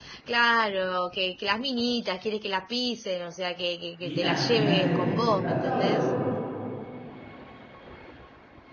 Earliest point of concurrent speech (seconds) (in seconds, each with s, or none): 4.0 s